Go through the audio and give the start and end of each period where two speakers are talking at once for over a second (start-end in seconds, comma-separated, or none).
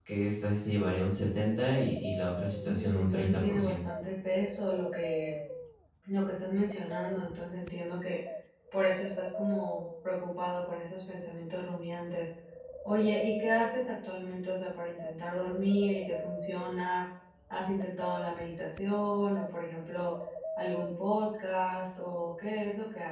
2.5-3.8